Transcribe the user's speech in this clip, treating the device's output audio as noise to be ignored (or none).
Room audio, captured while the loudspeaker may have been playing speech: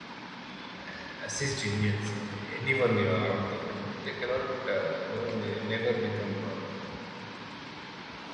uh, assist Indians or anyone uh, around the world. but They cannot, uh, you know, ne- never become uh,